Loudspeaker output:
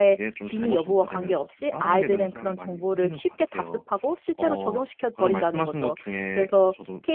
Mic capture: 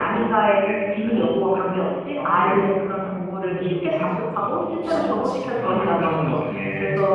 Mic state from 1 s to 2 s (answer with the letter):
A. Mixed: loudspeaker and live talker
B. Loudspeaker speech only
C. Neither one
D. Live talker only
B